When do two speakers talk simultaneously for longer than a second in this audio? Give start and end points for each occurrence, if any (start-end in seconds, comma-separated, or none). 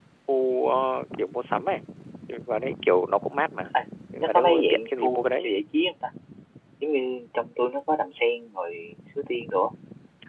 4.2-5.5